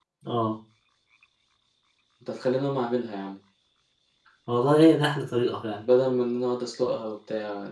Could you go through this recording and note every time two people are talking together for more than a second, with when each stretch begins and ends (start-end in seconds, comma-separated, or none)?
none